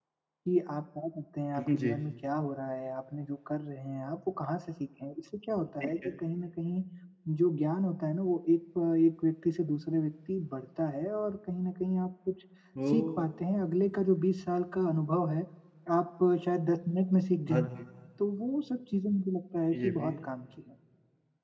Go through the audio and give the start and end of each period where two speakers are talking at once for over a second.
none

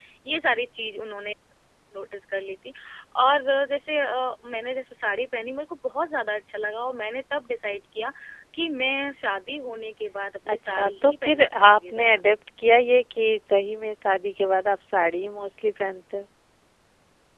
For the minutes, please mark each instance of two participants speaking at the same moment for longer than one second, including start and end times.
10.5-12.1

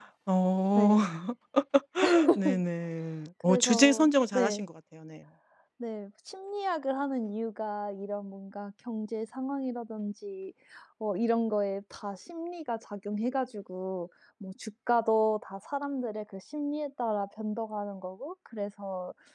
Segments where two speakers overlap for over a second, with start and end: 3.4-4.6

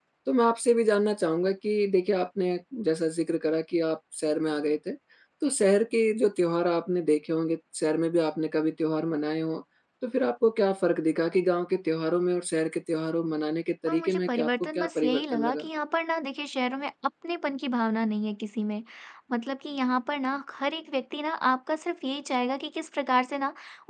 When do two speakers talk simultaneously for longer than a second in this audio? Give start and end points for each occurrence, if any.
13.9-15.7

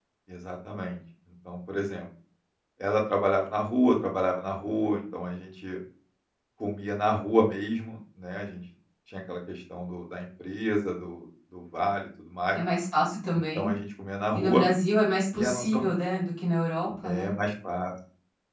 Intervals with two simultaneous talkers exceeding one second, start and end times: none

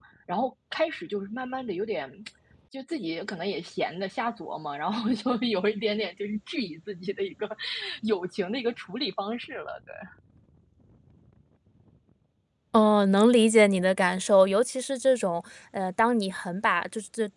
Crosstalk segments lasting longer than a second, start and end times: none

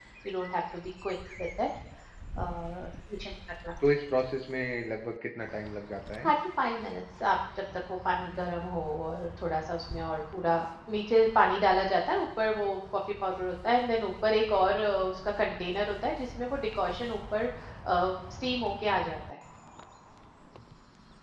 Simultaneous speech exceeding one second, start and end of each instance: none

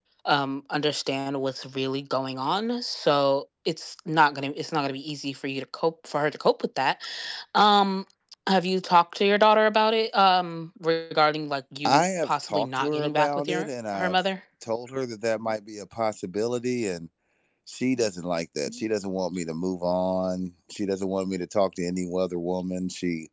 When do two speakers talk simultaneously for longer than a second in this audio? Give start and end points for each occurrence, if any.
11.8-14.2

